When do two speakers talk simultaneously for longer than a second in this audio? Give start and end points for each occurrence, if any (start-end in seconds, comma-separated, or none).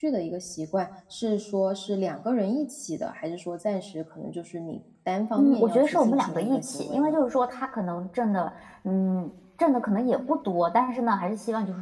5.4-7.2